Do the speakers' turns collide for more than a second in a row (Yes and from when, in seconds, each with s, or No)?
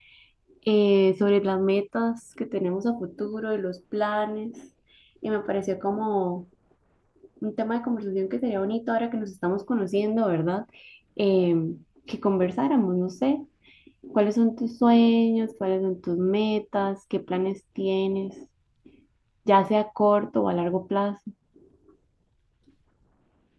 No